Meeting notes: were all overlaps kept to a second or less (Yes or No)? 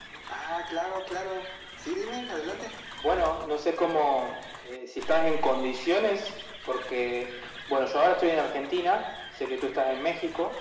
Yes